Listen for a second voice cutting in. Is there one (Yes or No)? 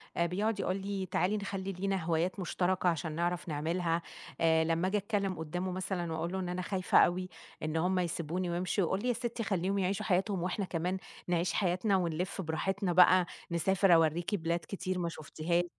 No